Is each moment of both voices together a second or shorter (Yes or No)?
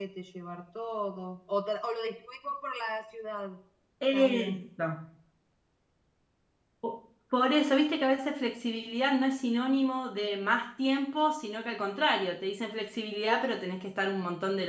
Yes